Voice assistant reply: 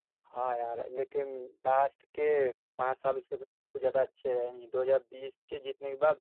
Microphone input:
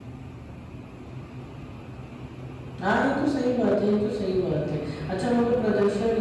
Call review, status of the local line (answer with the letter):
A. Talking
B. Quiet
A